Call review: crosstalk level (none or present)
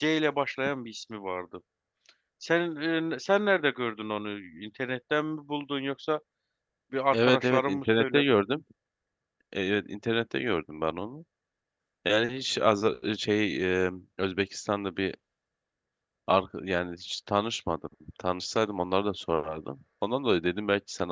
present